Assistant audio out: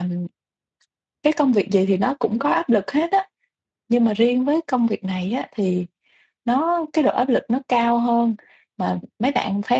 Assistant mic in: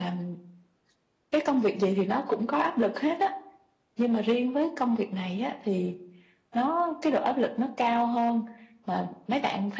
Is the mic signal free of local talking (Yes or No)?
Yes